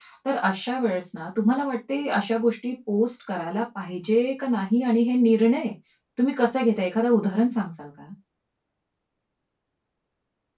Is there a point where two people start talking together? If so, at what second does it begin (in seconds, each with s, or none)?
none